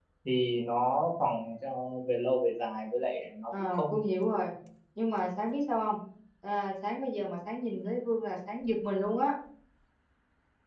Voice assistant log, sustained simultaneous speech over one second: none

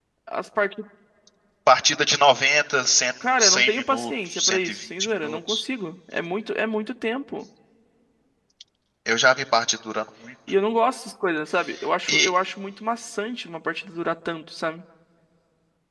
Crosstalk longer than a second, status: present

